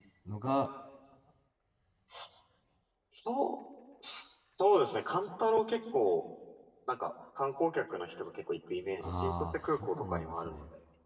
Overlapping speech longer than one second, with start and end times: 9.0-10.6

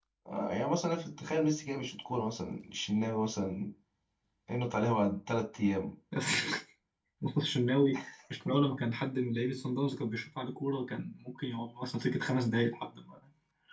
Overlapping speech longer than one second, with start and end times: none

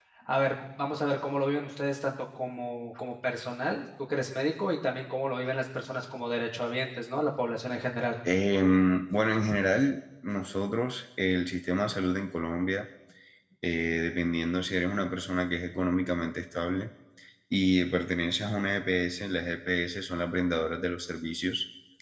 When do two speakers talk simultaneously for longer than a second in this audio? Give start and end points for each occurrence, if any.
none

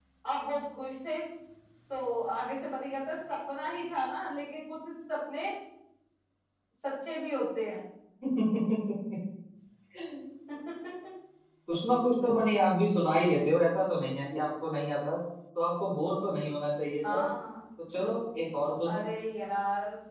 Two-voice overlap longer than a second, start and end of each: none

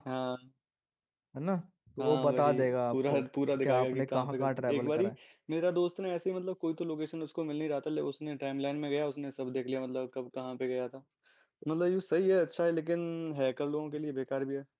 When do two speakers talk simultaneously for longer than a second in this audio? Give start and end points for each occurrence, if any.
2.0-3.2, 3.6-5.1

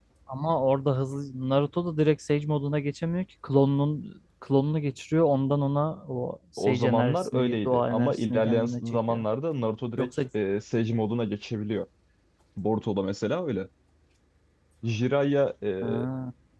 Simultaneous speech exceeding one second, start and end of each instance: 6.6-9.2

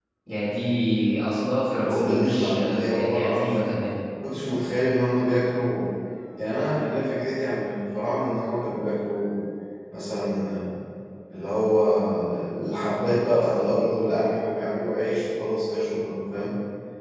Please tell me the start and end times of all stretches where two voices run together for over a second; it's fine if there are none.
1.9-3.7

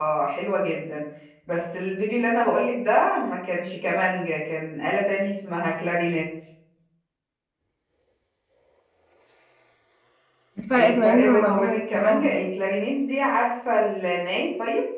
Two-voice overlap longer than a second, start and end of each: 10.8-12.3

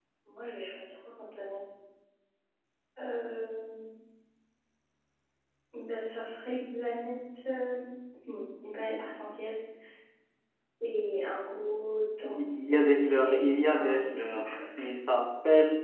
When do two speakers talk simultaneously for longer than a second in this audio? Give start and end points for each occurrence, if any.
12.2-14.8

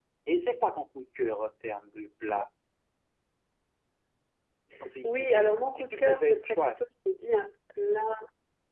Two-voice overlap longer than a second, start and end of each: 5.0-6.8

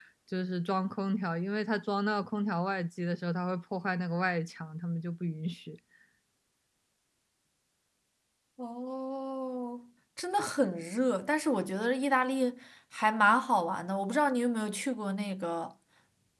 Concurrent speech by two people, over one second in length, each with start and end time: none

